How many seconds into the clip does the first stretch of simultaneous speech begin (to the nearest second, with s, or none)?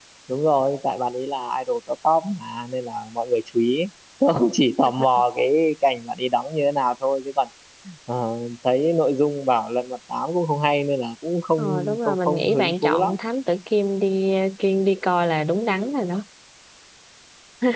12 s